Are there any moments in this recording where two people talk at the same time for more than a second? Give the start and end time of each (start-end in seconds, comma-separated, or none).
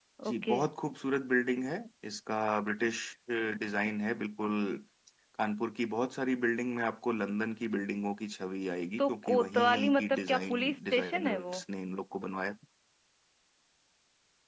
9.0-11.6